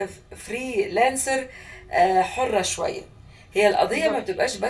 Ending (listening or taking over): listening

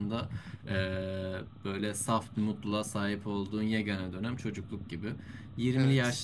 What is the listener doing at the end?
listening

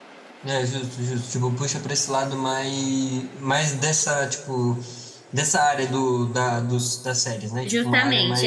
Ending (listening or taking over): taking over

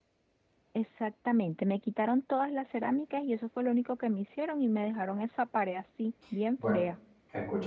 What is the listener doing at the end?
taking over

